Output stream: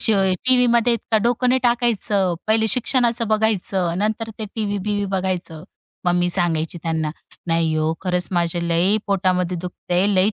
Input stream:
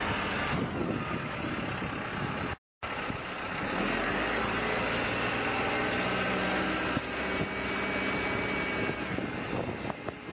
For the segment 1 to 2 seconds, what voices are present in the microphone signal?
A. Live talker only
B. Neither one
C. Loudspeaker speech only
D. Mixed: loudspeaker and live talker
B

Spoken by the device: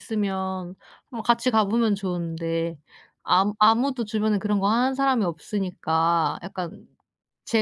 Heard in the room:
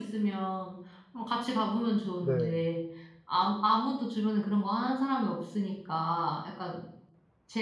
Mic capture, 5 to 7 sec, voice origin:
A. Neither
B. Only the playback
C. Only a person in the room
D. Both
B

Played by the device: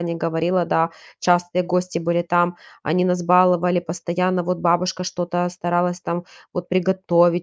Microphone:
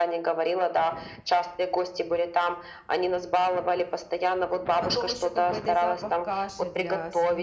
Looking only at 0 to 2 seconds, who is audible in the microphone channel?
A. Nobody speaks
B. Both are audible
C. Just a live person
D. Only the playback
D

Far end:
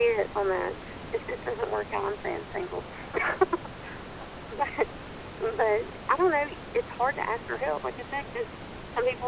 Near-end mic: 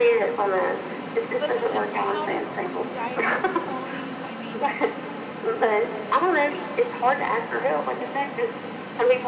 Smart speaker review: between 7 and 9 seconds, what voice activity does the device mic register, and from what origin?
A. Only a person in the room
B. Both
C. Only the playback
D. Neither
C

